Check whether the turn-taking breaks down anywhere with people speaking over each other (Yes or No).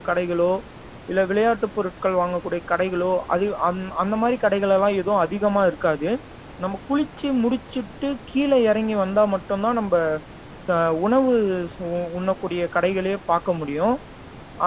No